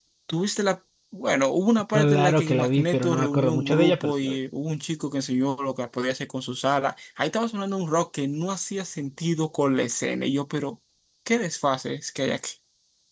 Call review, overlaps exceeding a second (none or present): present